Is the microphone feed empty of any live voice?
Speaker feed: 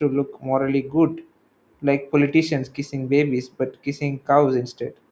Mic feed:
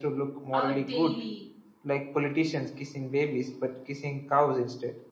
No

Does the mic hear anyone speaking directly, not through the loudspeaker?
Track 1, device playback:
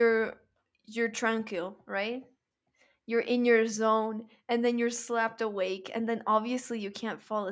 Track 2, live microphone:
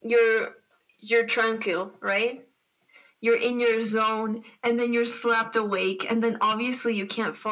No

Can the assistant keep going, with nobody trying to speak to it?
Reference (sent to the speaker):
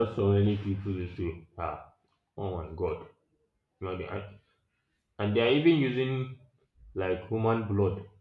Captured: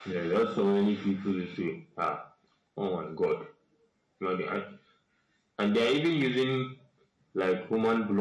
Yes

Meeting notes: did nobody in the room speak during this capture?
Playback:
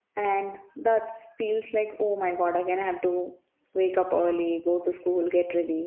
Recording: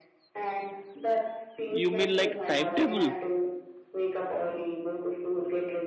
No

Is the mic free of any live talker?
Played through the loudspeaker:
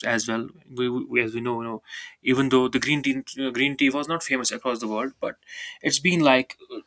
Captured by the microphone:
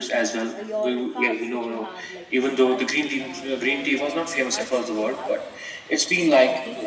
No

